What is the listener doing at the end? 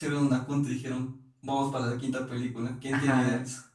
taking over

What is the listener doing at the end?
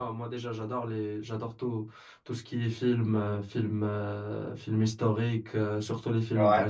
listening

